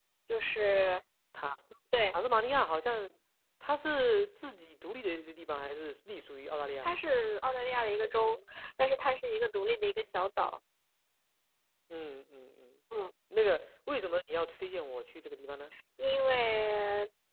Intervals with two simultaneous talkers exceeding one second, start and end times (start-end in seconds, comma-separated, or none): none